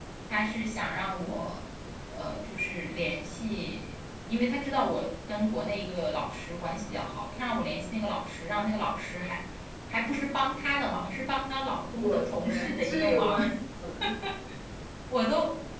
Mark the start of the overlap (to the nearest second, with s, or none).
12 s